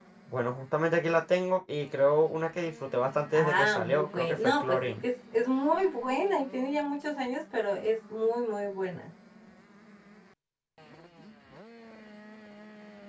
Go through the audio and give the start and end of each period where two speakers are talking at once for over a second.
3.3-4.9

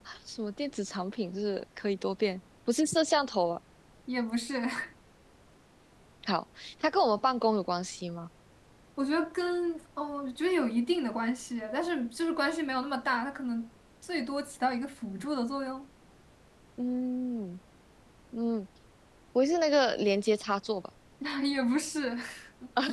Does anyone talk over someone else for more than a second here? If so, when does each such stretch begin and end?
none

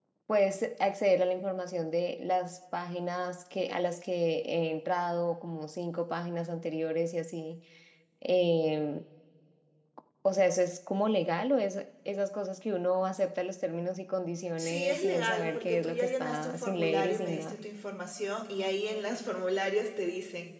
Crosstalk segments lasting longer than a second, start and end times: 14.6-17.6

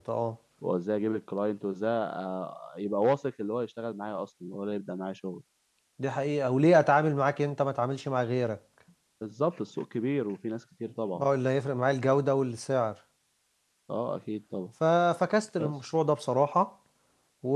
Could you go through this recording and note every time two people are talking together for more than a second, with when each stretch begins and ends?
none

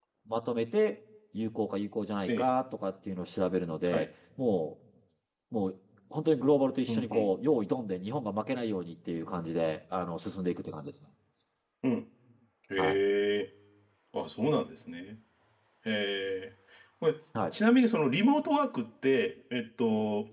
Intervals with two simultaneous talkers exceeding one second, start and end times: none

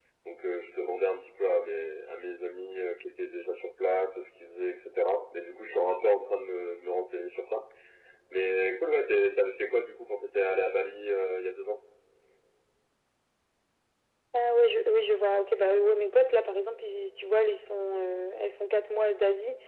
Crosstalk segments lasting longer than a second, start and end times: none

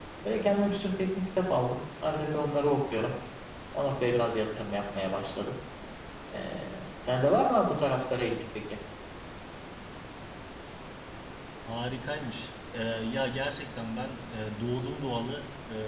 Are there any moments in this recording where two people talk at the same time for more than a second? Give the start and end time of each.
none

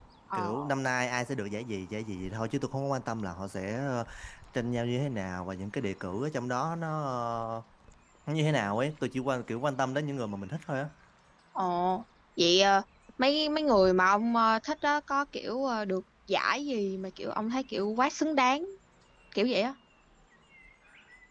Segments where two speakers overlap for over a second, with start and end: none

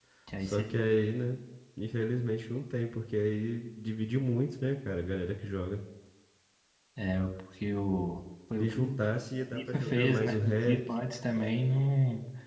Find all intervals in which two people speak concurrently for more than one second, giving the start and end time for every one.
9.5-10.8

